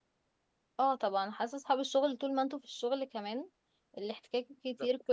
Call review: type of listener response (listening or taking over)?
listening